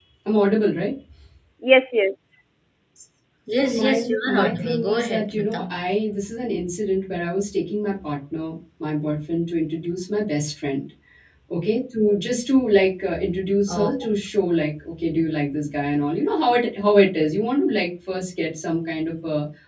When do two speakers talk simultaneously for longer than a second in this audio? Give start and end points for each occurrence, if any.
3.6-5.7

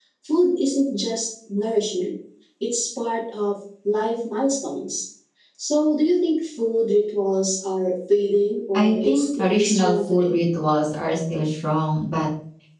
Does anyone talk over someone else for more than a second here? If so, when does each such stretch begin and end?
8.7-10.4

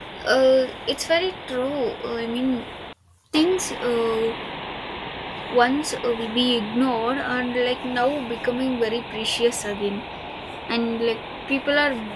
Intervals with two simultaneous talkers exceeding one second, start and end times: none

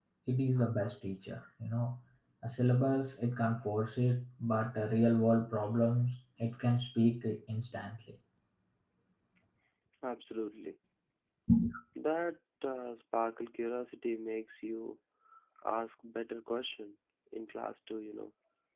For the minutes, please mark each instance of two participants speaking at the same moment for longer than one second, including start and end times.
none

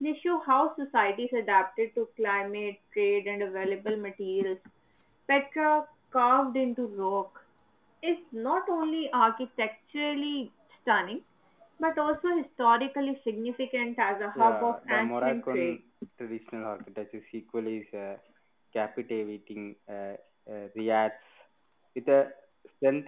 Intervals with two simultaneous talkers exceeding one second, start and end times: 14.4-15.8

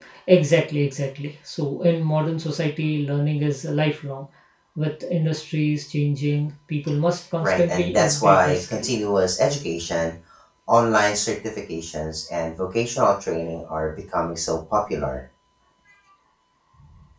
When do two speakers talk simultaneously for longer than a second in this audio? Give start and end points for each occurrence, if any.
7.4-8.9

